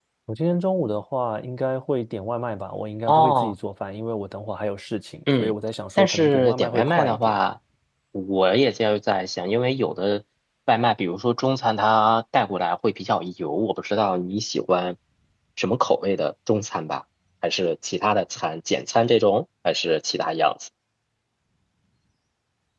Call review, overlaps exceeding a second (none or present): present